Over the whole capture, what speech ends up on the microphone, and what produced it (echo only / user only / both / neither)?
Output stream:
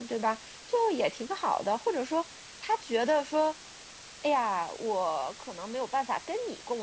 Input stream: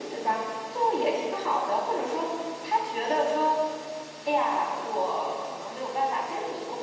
echo only